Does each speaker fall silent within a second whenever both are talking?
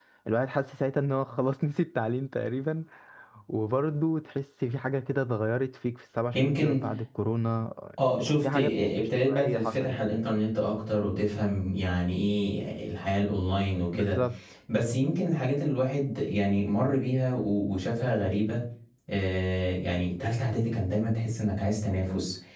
No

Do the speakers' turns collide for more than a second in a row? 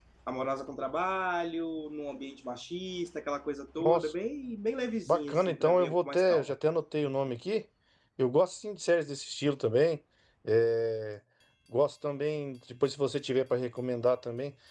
Yes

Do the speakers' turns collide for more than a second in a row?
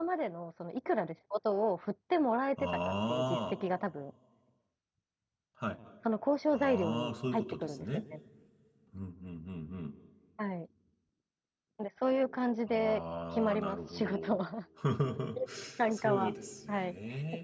Yes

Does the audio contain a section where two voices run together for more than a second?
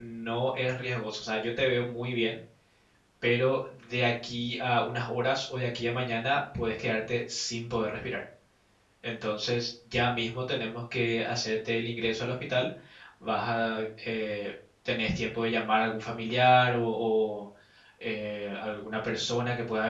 No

